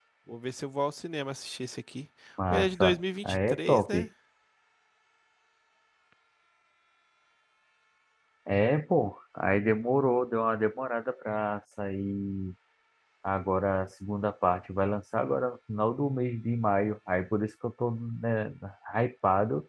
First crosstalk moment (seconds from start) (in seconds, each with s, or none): 2.5 s